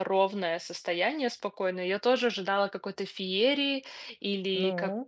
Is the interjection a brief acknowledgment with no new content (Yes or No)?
Yes